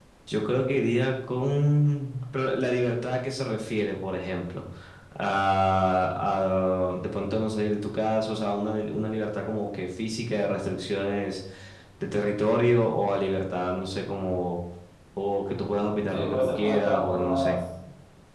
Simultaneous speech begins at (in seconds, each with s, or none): 16.1 s